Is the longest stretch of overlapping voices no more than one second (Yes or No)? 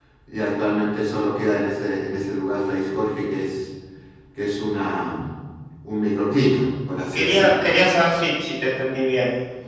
Yes